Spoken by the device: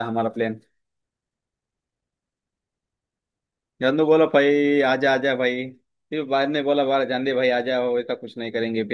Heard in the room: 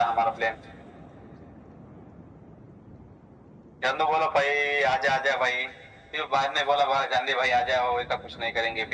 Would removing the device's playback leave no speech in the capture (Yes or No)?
Yes